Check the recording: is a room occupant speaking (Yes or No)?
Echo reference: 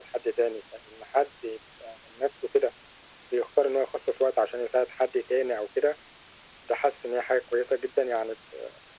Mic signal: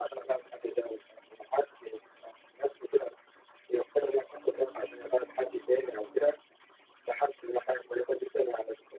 No